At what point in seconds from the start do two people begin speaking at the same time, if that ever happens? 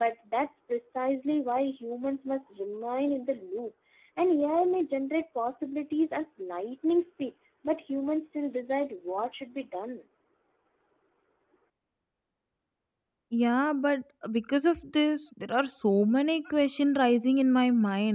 none

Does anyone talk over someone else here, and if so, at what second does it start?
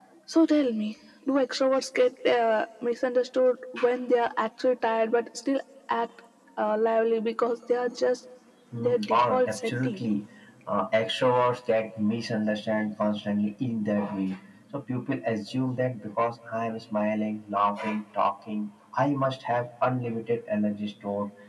8.8 s

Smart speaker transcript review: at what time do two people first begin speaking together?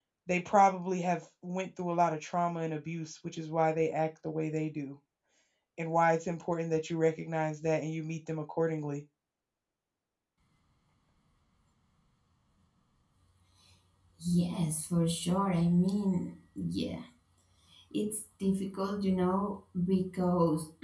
none

